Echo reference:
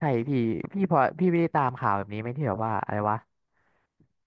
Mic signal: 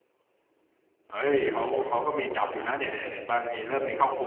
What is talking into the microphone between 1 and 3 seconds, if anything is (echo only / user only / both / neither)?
user only